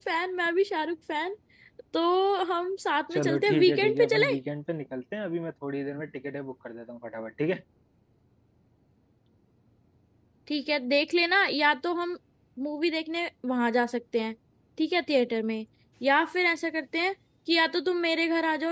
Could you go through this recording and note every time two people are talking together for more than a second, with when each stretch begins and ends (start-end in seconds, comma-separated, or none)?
3.1-4.3